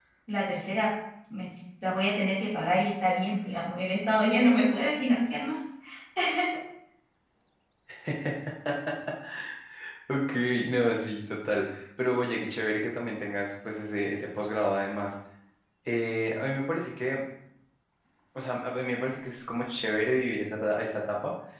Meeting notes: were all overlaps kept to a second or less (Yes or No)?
Yes